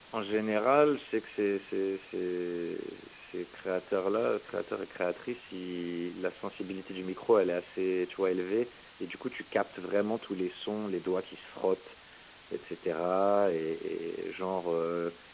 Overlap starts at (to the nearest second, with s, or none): none